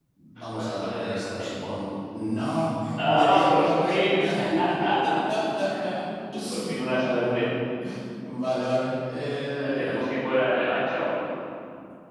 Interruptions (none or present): present